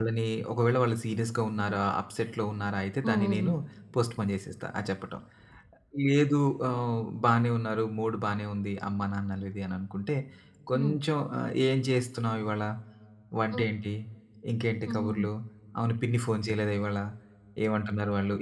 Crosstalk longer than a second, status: none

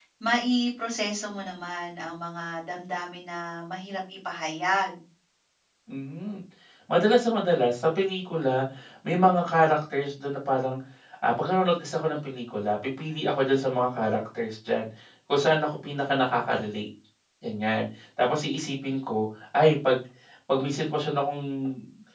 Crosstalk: none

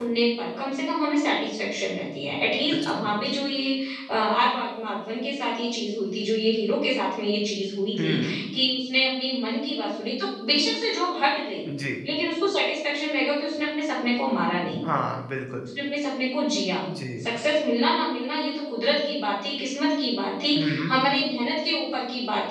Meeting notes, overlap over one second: none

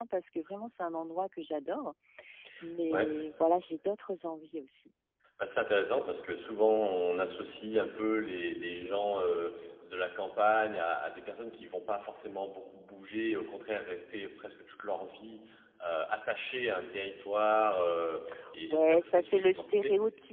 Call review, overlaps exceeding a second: present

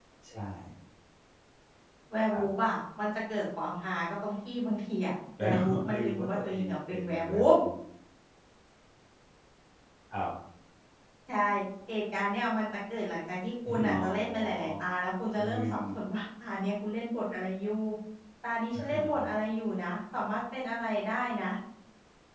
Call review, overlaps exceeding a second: present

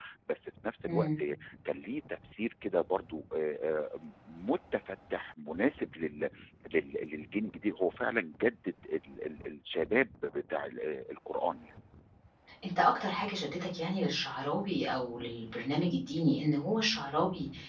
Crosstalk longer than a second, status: none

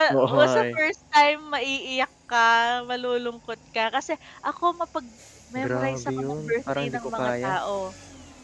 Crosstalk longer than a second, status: present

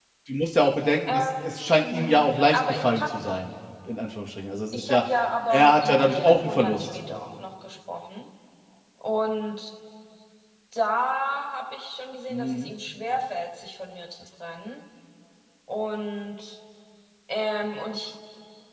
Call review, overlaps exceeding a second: present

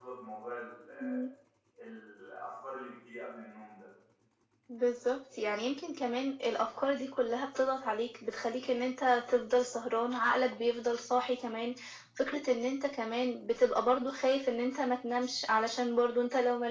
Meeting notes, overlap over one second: none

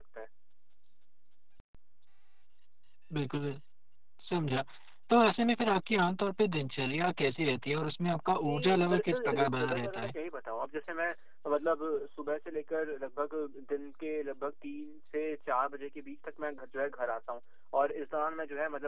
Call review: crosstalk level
present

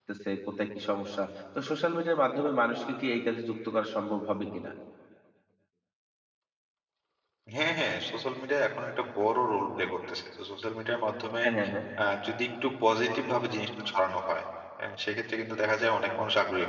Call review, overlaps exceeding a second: none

